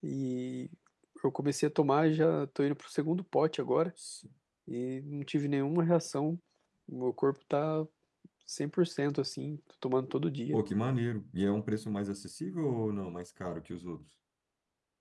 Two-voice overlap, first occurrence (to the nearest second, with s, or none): none